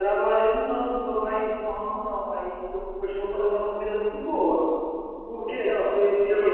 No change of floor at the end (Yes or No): No